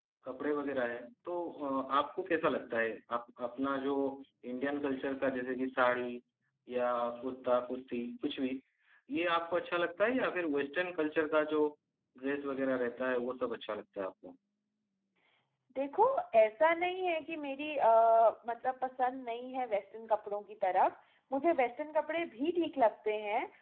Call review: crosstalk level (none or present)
none